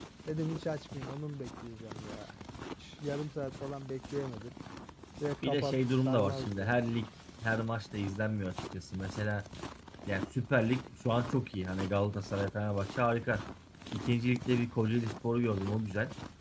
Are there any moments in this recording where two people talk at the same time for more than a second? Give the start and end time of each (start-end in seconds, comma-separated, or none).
5.5-6.8